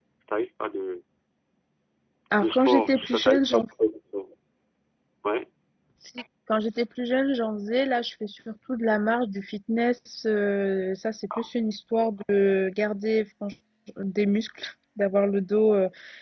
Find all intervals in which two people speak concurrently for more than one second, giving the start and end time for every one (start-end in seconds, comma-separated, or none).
2.4-3.6